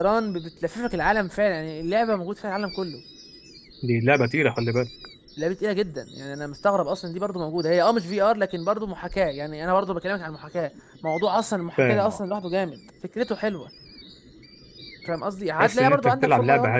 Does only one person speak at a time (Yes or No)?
No